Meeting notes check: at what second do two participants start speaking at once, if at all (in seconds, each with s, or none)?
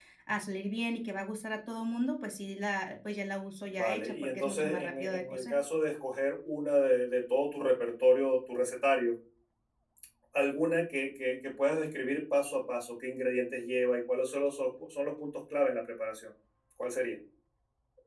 3.7 s